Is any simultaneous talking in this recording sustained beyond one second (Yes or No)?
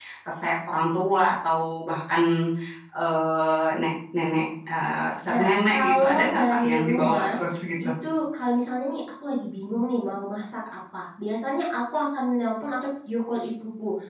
Yes